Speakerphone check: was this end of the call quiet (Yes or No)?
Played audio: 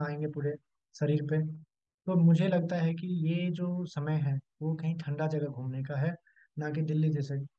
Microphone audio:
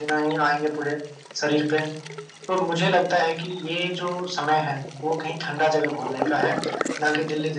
Yes